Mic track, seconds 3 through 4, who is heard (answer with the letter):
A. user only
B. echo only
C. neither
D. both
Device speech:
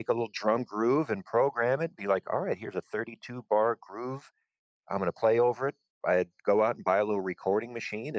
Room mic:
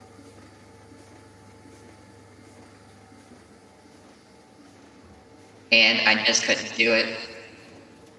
C